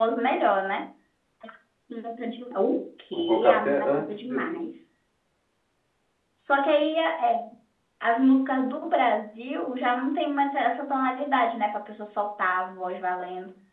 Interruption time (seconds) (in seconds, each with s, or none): 3.1 s